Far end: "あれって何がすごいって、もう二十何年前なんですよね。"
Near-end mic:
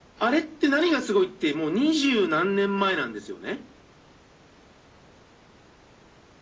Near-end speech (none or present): none